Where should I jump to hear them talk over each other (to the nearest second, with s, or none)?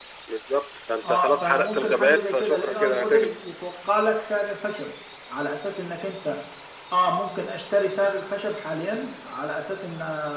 1 s